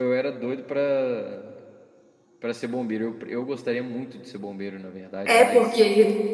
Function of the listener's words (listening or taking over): taking over